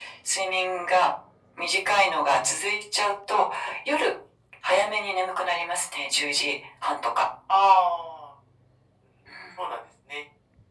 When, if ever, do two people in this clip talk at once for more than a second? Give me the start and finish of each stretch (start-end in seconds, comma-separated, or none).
none